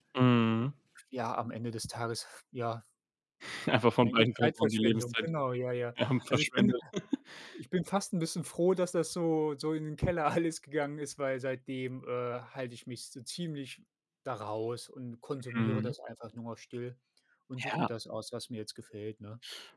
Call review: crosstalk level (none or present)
present